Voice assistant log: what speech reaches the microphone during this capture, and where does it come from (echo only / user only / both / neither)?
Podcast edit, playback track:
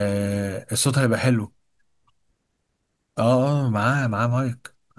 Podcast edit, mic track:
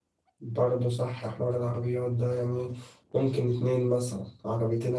user only